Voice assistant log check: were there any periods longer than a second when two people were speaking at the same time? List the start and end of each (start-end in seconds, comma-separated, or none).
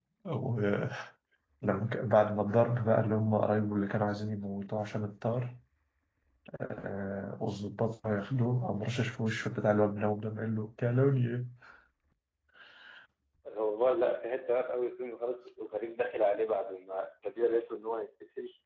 none